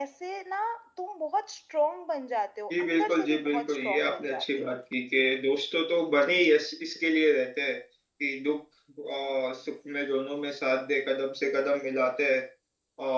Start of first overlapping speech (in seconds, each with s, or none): 2.7 s